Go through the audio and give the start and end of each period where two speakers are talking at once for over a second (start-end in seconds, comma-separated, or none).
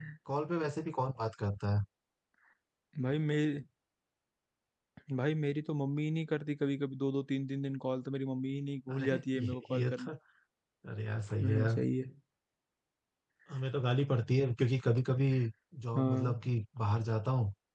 8.9-10.1